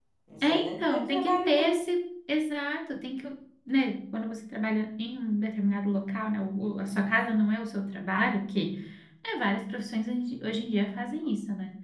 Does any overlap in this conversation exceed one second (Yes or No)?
Yes